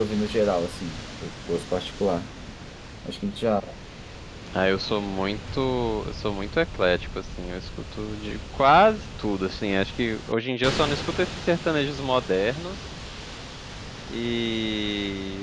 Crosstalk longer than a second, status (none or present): none